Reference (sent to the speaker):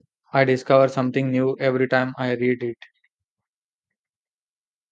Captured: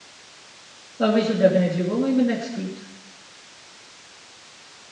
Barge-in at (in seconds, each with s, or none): 1.0 s